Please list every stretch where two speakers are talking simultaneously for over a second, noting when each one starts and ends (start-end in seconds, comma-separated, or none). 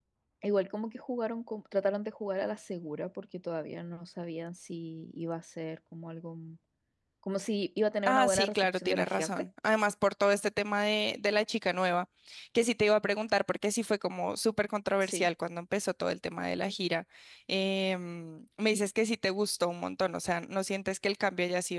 8.1-9.3